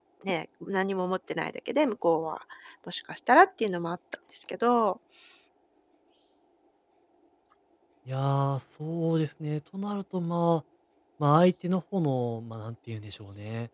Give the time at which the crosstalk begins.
none

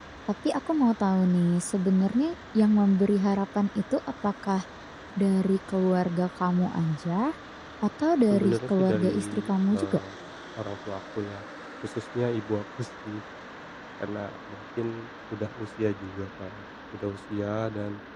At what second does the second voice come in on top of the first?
8 s

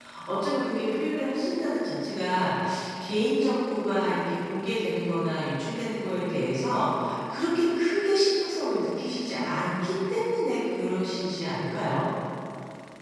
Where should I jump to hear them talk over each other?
none

